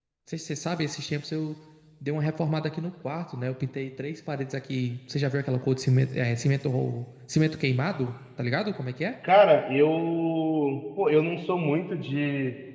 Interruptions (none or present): none